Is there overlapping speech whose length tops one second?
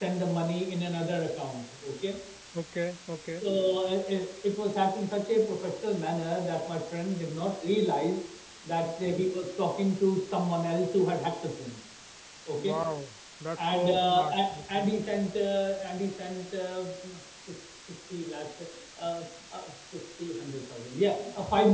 Yes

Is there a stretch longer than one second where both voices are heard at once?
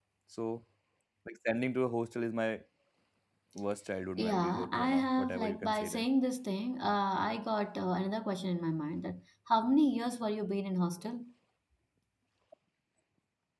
Yes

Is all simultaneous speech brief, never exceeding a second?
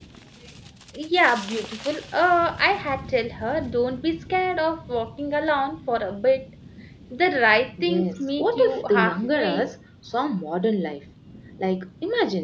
No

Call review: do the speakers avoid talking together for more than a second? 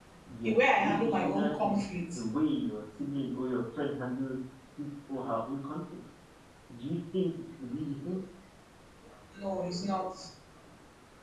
No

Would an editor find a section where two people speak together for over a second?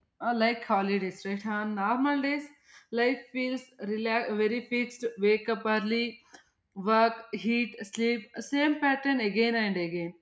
No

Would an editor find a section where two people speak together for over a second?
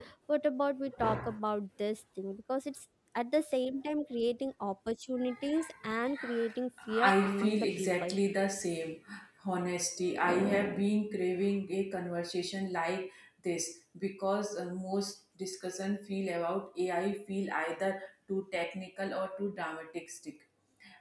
Yes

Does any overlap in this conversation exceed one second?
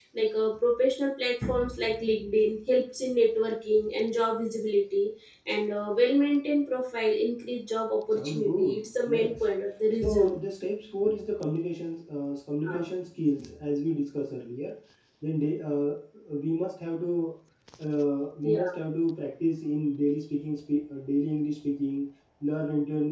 Yes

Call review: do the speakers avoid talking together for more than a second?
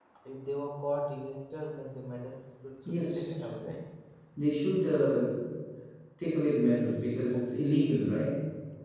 Yes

